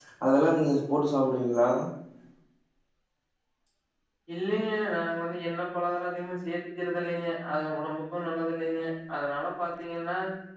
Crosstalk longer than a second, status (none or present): none